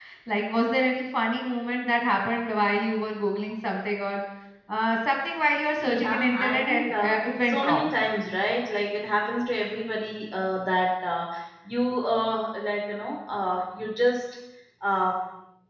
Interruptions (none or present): present